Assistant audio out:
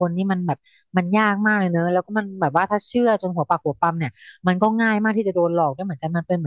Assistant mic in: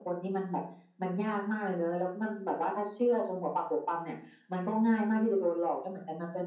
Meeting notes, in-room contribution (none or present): none